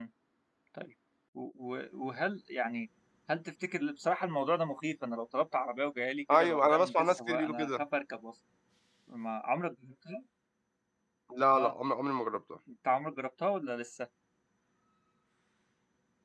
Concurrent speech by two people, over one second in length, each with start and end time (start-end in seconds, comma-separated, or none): 6.3-7.8